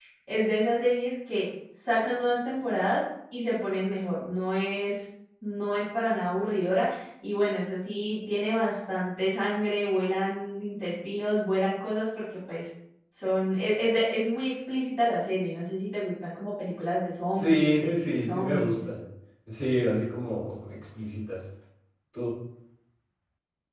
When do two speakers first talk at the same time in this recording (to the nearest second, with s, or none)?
17 s